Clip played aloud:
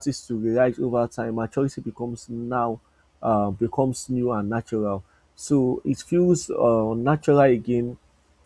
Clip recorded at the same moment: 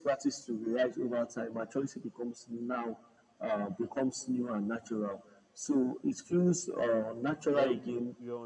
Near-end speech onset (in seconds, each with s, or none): 7.4 s